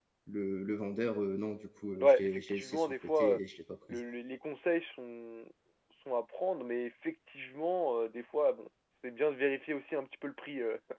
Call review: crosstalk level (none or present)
present